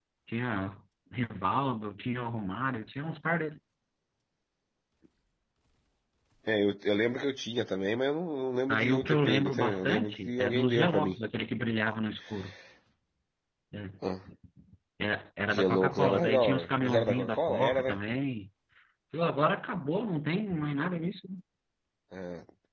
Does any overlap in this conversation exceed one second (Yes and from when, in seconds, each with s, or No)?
Yes, from 8.7 s